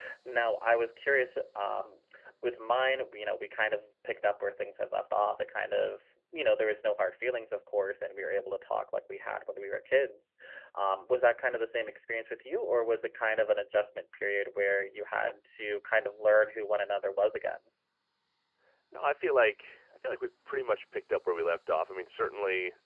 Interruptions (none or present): none